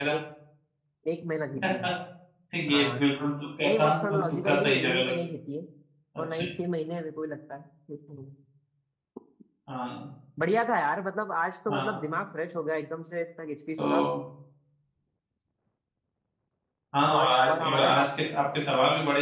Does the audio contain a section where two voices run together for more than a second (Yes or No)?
Yes